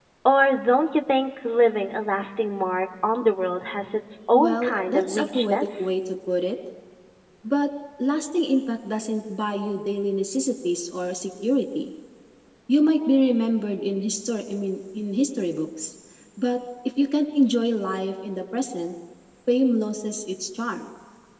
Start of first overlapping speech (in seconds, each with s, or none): 4.3 s